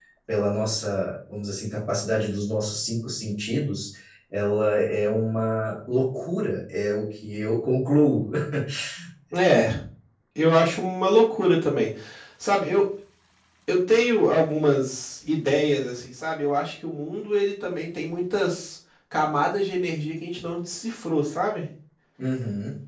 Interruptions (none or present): none